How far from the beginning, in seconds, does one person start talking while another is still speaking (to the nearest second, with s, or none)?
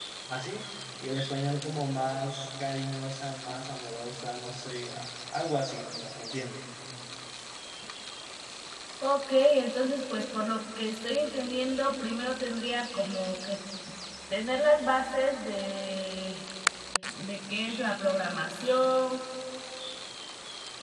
none